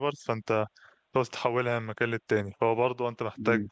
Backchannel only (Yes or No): Yes